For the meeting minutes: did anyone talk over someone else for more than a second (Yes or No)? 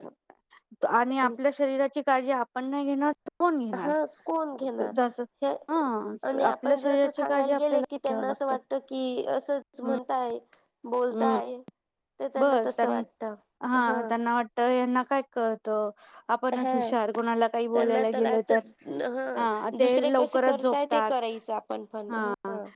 Yes